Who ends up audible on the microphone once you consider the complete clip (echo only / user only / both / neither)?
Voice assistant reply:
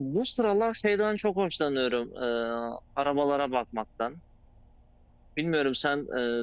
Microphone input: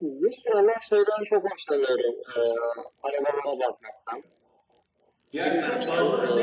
both